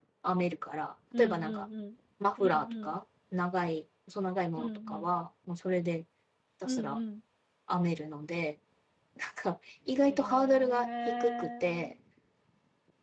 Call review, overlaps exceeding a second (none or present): present